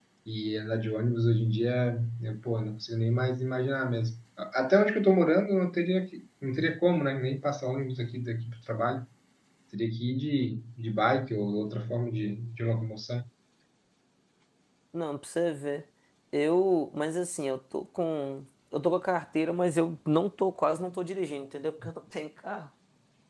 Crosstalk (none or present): none